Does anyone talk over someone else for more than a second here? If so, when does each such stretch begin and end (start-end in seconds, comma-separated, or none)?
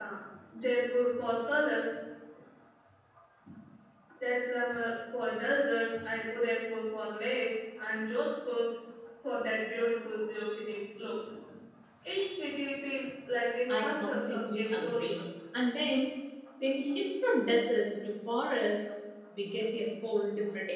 13.7-15.2